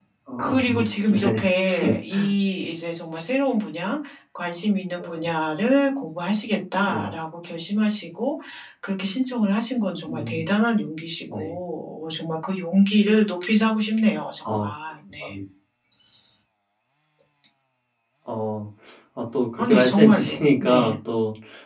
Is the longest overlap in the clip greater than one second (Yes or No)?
Yes